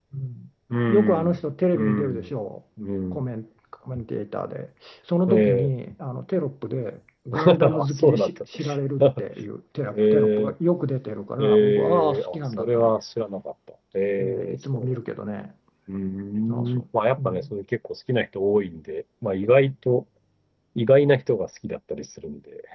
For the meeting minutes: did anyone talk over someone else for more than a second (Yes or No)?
Yes